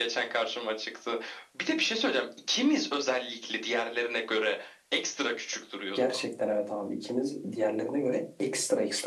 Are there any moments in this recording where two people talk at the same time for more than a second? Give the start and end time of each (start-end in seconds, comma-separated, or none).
none